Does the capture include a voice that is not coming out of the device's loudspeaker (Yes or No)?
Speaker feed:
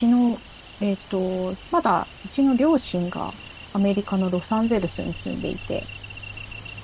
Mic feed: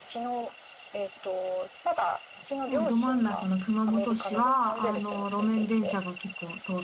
Yes